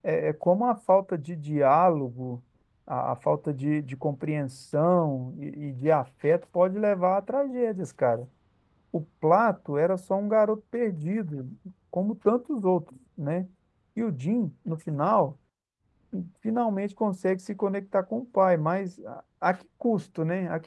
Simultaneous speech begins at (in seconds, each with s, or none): none